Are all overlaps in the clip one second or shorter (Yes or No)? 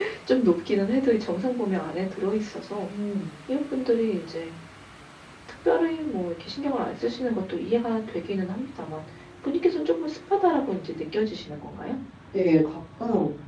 Yes